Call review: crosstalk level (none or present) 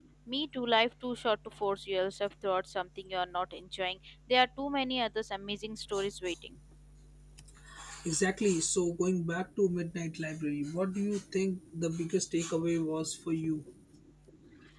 none